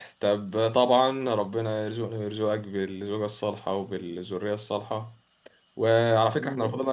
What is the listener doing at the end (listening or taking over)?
listening